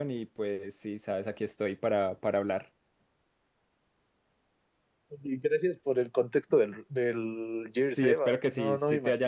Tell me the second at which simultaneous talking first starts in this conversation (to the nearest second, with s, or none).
8 s